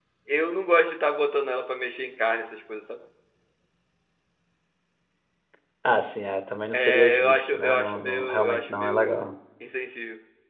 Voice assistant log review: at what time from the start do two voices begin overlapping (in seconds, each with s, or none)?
6.7 s